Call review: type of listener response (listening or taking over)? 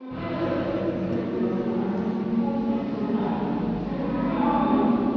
listening